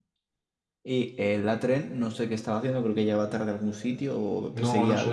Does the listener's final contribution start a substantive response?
Yes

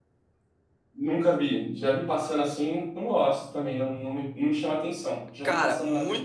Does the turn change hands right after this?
Yes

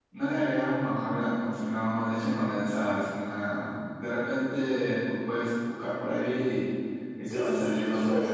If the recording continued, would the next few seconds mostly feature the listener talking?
Yes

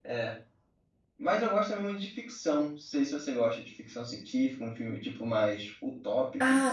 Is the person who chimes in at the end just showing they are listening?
No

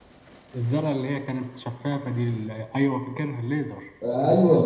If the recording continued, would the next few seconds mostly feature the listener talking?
Yes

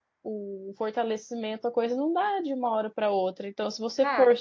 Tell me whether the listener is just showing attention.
Yes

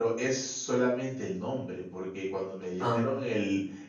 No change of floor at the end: Yes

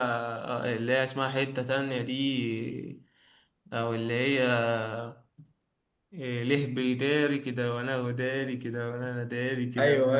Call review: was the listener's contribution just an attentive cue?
No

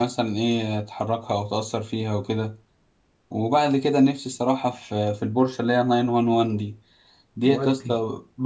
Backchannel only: Yes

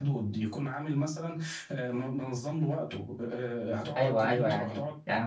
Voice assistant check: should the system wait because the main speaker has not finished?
No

